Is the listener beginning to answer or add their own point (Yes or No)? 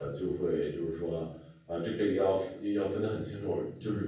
No